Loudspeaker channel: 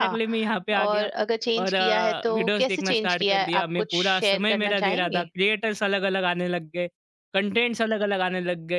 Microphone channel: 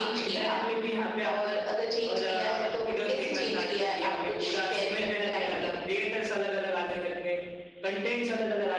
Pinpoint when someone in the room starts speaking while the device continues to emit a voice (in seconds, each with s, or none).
none